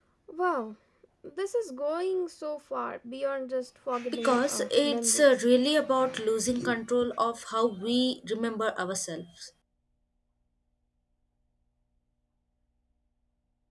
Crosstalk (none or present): present